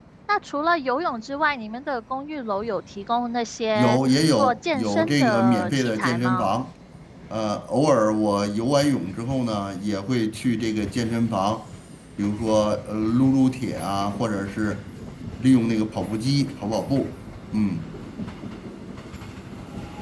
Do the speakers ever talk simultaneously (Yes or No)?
Yes